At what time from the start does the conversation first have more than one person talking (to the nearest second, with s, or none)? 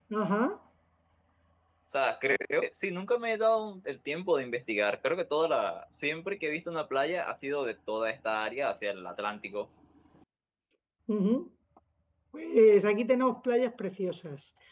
none